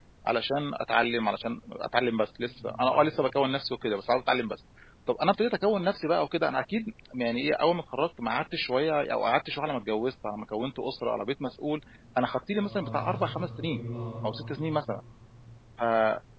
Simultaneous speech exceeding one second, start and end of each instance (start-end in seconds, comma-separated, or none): 12.6-13.8